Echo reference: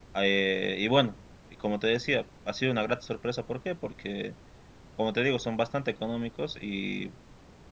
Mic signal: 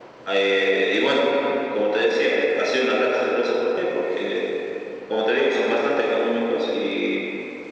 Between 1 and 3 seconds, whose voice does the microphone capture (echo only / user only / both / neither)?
echo only